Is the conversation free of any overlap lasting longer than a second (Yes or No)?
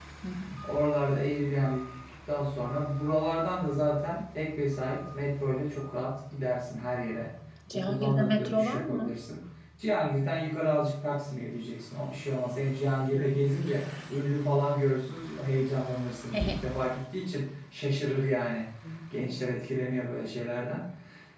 No